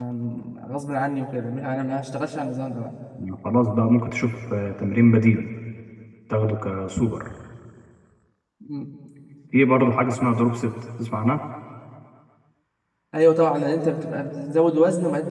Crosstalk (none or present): none